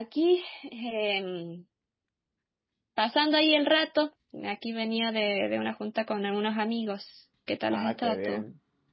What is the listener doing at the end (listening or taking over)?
taking over